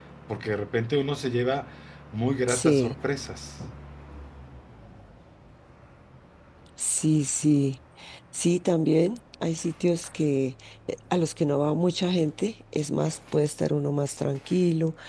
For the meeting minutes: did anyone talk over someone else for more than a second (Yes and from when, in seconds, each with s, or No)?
No